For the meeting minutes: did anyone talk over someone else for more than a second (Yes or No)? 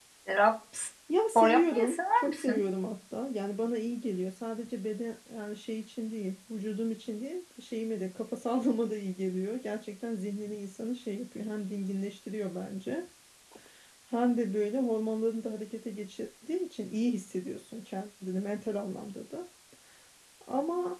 Yes